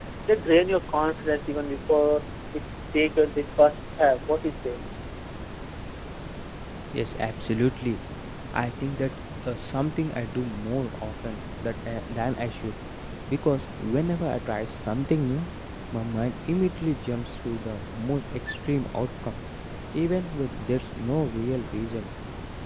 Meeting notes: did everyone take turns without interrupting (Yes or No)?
Yes